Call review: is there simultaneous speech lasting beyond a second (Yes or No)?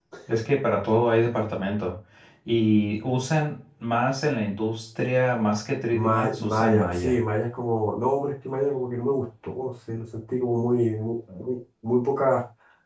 Yes